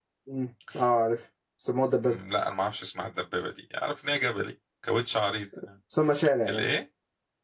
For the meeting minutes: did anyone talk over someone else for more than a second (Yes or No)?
No